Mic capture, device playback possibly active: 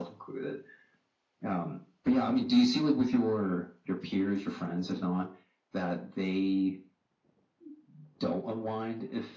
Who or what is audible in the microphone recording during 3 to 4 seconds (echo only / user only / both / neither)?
echo only